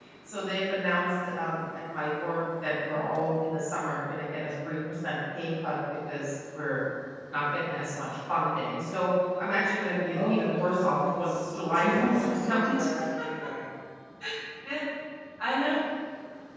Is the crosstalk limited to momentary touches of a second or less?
No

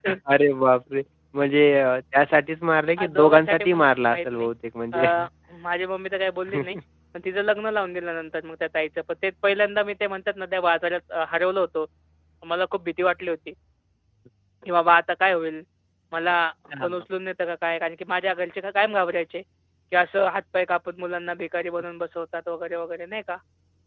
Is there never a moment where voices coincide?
No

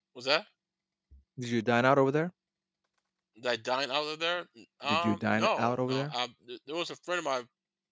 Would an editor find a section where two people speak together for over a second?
Yes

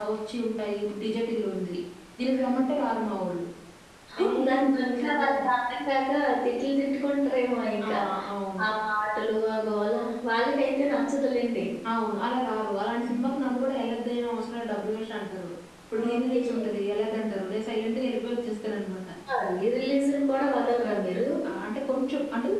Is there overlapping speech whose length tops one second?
Yes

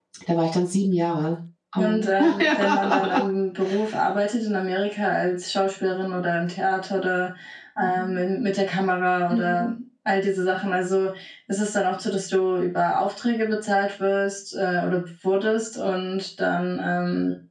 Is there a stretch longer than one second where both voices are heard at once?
Yes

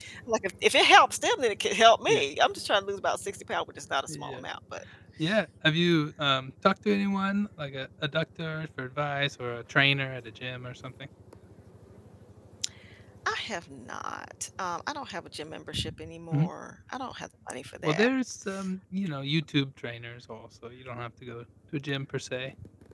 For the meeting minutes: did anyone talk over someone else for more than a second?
No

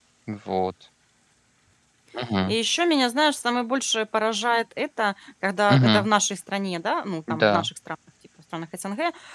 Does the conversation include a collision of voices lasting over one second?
No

